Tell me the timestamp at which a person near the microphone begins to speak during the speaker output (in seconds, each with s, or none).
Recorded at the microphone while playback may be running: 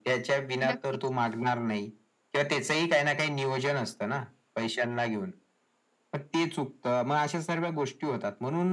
0.6 s